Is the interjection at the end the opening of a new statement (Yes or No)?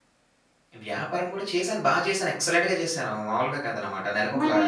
No